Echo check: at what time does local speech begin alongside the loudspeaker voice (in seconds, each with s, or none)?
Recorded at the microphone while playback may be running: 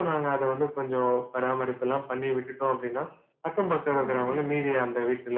3.8 s